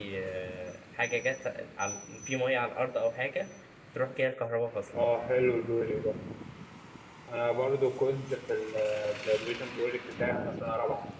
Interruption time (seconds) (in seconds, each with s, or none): none